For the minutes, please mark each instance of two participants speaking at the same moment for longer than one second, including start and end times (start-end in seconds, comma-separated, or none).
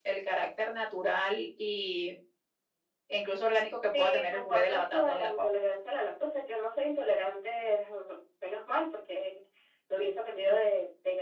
3.8-5.4